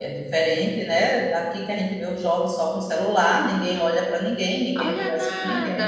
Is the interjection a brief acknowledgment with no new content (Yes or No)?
No